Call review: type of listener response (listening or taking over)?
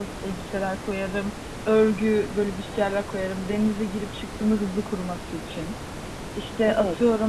listening